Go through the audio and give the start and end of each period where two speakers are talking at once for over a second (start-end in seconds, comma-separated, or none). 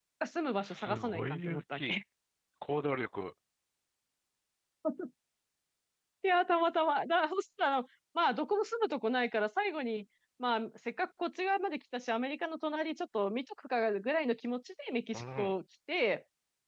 0.6-2.0